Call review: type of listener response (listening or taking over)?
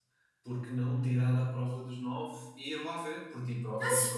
taking over